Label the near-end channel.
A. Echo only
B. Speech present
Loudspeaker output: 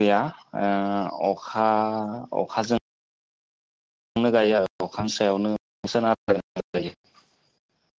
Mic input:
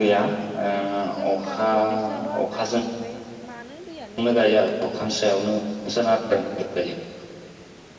B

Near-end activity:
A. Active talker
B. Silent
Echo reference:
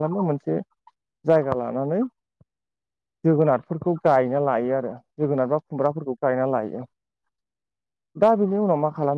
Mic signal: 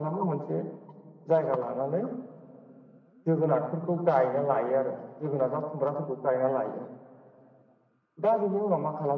B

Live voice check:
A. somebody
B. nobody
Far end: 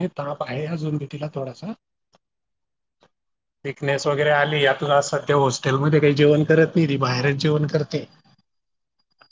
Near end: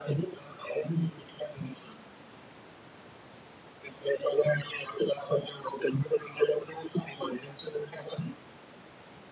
B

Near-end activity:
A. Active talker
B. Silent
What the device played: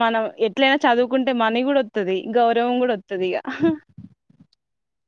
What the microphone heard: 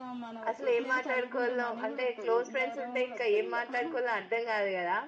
A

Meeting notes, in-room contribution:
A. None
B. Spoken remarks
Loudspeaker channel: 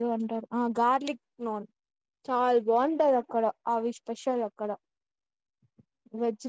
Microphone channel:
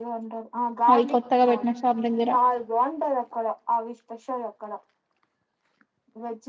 B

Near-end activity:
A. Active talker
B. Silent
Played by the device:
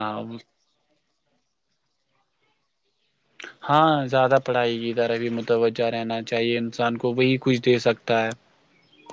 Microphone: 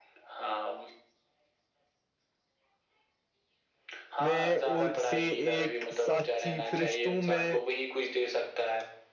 A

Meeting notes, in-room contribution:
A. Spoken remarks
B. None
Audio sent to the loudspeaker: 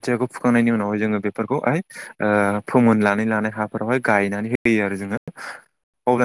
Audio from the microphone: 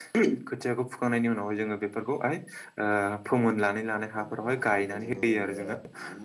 A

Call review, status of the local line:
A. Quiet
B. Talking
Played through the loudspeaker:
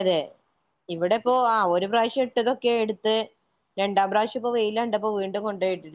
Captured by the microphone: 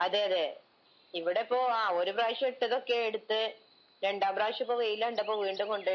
A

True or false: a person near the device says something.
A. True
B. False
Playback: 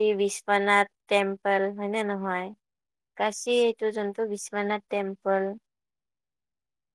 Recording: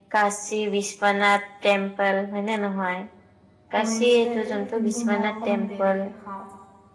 A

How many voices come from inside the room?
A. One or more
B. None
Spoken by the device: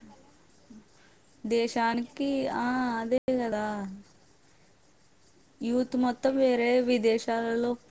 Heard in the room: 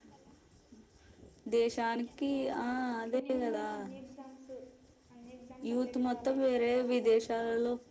A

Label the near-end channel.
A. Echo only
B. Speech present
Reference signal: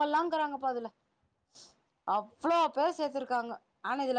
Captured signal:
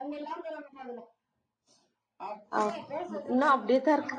B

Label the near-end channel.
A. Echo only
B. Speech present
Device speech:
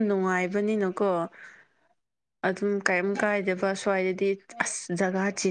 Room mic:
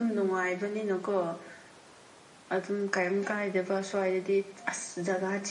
A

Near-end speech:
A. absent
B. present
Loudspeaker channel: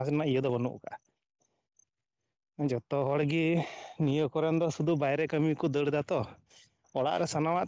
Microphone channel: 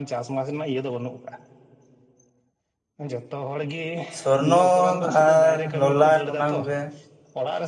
B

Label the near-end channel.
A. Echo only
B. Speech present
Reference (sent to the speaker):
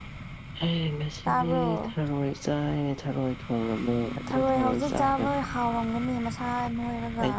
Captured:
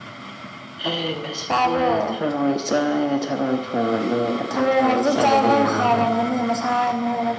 B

